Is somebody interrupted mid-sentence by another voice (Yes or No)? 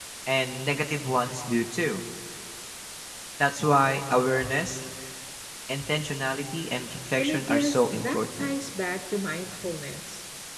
Yes